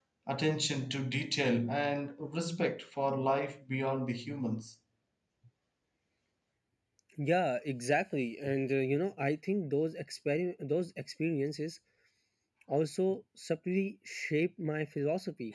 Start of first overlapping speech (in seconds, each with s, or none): none